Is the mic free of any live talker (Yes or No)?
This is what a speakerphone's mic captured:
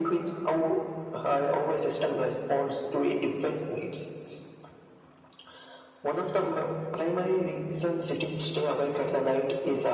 Yes